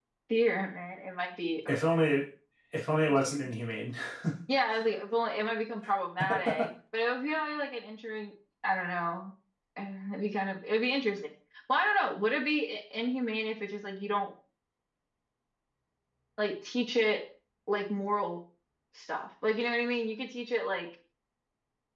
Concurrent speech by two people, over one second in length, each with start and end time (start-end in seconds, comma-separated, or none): none